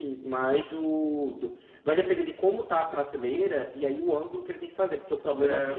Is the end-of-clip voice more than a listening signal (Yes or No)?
No